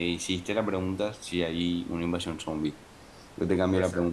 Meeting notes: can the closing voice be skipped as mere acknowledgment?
Yes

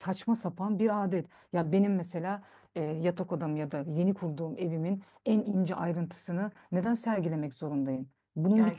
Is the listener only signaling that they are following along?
Yes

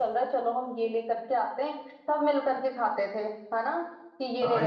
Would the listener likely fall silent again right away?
No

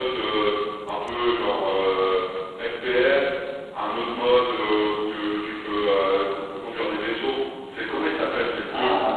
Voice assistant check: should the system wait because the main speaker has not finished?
No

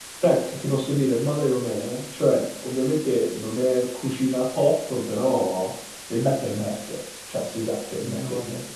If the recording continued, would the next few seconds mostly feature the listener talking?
Yes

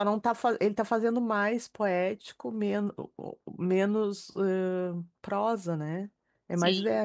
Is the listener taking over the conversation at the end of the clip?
Yes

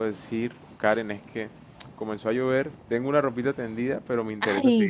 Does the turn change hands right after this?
No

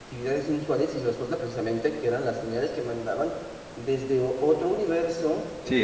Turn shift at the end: No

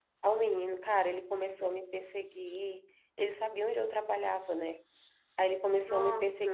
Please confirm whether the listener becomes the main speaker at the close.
No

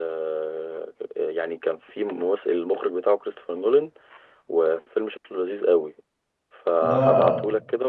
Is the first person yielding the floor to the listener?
No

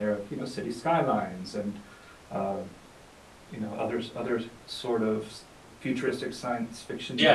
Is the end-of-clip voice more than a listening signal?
Yes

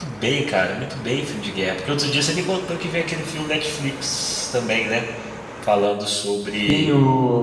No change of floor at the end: No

